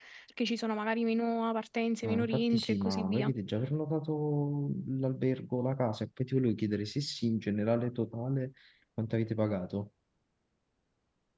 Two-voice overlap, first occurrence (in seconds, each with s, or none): 2.0 s